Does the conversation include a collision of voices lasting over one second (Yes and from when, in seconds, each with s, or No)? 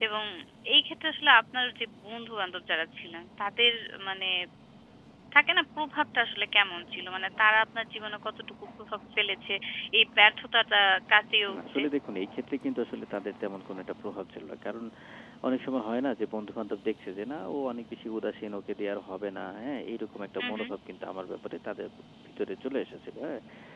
No